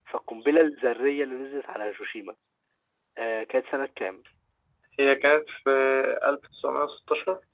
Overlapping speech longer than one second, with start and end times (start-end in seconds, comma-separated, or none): none